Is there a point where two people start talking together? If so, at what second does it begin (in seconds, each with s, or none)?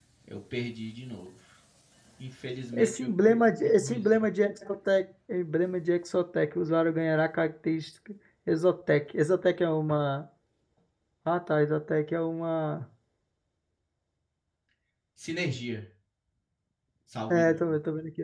2.8 s